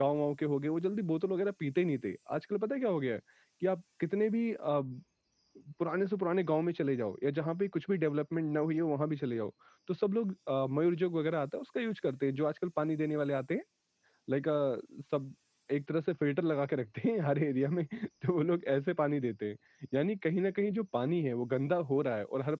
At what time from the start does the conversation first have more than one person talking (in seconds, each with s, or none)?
none